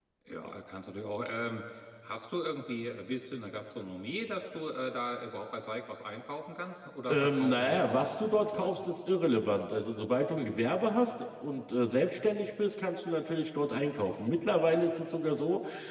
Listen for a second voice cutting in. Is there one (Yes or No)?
Yes